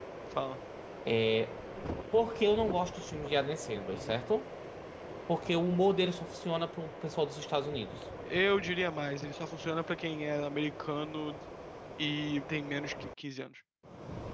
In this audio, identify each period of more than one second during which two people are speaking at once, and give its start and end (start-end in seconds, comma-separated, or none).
none